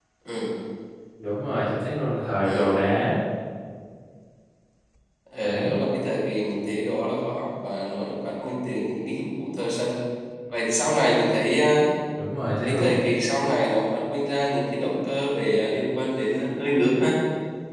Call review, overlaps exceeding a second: none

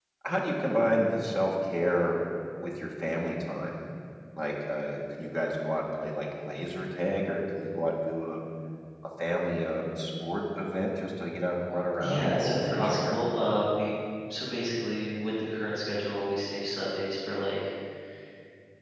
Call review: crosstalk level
present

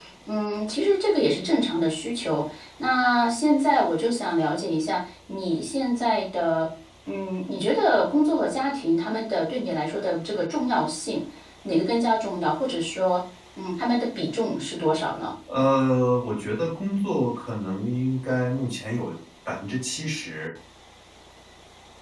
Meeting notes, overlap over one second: none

